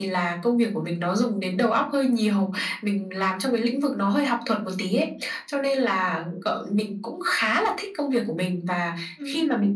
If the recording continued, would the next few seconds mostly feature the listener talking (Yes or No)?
No